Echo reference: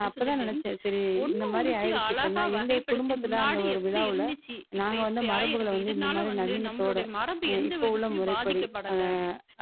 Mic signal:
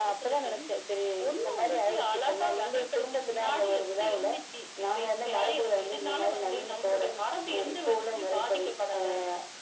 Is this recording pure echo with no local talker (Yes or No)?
Yes